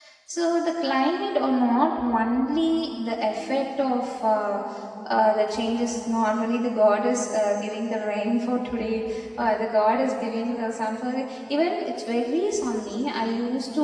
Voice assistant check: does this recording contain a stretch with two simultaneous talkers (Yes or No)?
No